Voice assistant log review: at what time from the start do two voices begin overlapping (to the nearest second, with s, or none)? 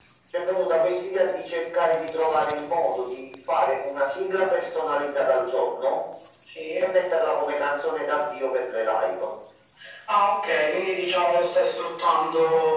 none